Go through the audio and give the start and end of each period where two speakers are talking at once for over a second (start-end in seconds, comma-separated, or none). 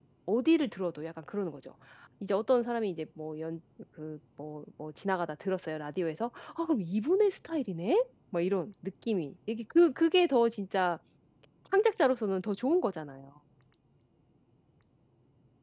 none